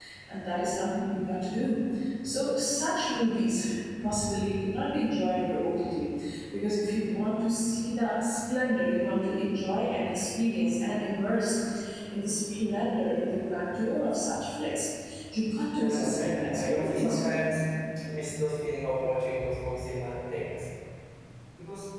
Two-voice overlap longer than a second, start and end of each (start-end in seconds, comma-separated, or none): 15.8-17.3